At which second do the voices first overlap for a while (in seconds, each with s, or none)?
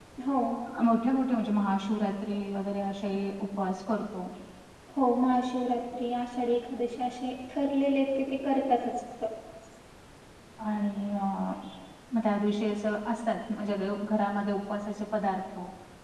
none